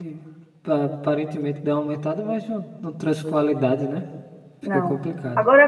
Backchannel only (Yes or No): No